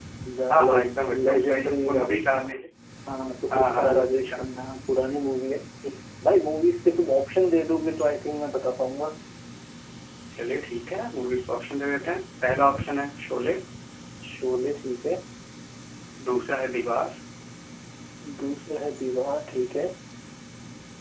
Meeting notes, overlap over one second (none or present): present